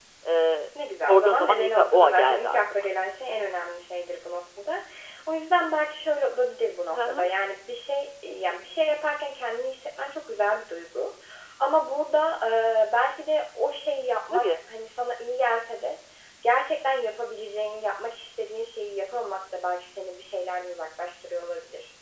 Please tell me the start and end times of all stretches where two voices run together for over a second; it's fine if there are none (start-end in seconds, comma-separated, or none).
1.1-2.9